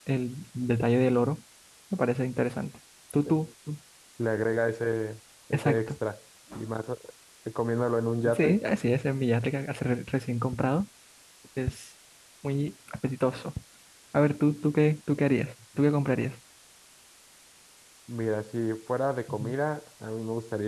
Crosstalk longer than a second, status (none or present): none